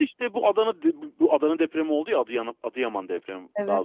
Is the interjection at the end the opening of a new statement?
No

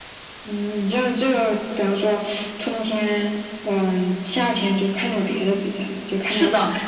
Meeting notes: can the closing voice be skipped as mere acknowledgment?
No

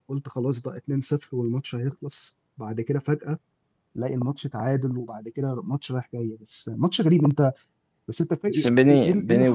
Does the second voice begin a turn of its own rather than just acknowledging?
Yes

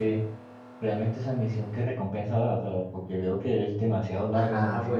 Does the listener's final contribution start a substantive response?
Yes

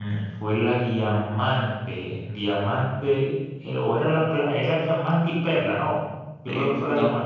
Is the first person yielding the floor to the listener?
Yes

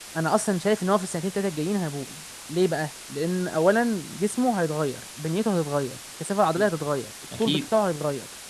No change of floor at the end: Yes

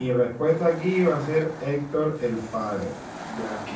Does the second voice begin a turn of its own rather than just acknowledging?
Yes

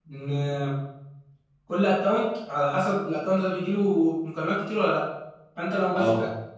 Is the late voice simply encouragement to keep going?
Yes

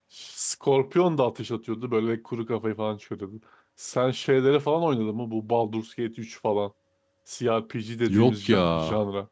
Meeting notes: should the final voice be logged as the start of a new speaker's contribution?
No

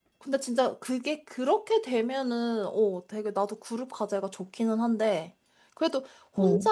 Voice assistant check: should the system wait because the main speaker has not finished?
Yes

